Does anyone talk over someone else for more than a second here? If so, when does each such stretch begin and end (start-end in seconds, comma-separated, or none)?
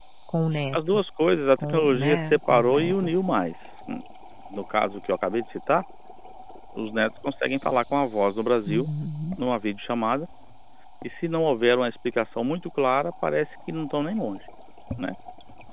1.6-3.2